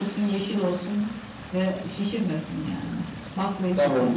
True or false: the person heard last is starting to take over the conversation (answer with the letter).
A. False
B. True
B